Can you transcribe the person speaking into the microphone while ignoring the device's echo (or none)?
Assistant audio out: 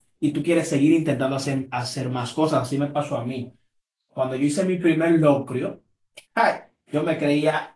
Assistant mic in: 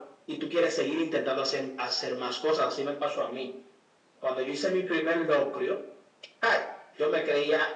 none